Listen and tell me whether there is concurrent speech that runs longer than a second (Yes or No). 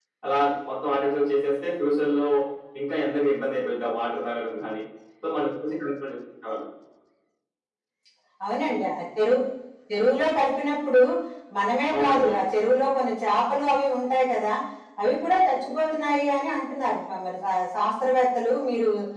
No